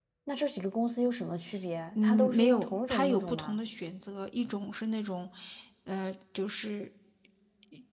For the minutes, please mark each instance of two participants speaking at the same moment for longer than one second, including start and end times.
1.9-3.6

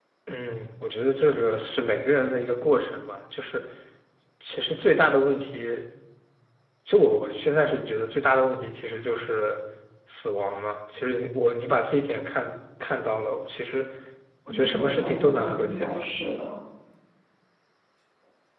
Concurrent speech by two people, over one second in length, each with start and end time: 14.7-16.0

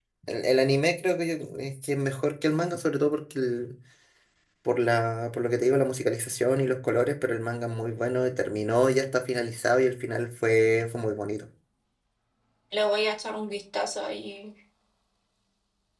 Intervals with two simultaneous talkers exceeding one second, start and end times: none

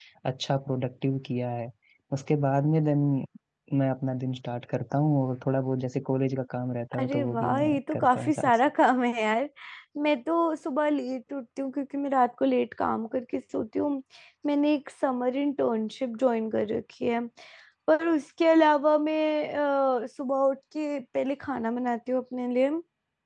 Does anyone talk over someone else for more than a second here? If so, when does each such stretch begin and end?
7.0-8.6

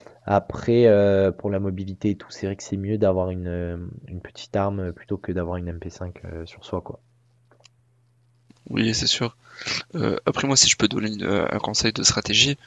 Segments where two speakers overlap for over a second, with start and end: none

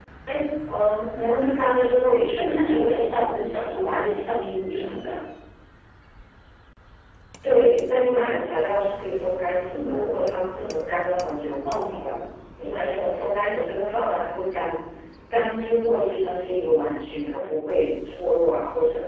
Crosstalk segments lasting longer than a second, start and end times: none

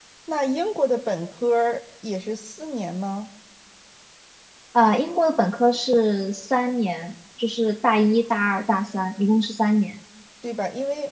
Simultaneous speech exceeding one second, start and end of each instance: none

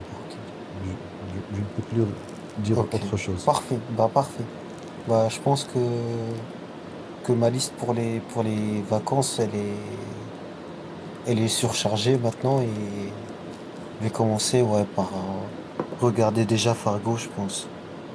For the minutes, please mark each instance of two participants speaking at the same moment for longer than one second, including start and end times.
none

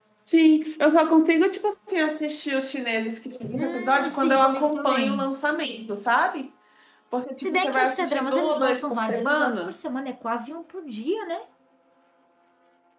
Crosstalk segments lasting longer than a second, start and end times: 3.4-5.3, 7.4-9.7

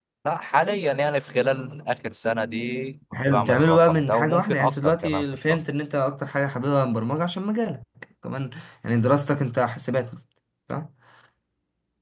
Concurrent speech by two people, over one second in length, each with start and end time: 3.3-5.6

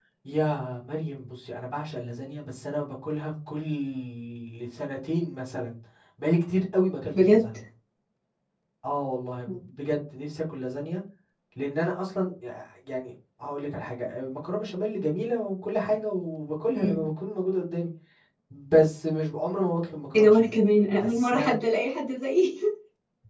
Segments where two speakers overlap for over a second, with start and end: none

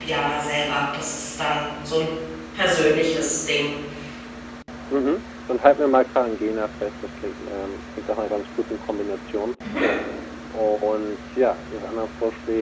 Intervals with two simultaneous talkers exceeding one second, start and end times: none

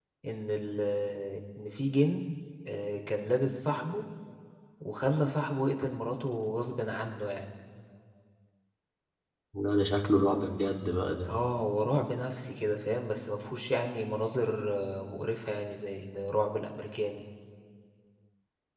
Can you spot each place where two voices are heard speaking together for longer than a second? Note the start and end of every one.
none

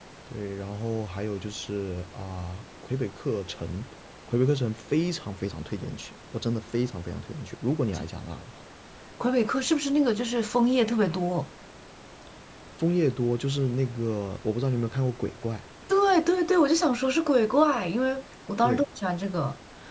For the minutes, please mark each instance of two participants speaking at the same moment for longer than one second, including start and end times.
none

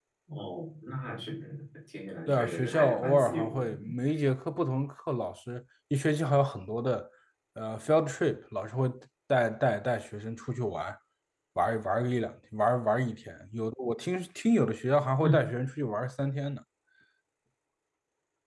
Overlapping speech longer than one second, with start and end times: 2.3-3.7

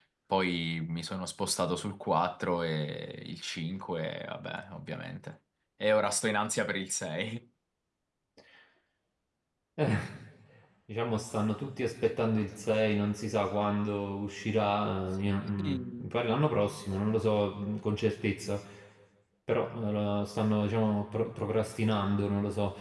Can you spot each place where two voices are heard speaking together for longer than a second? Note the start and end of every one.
none

